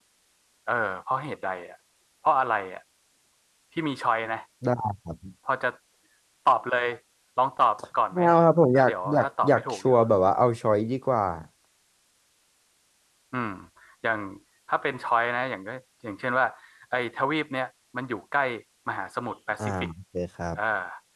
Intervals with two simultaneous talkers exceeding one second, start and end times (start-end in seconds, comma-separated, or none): 8.7-10.0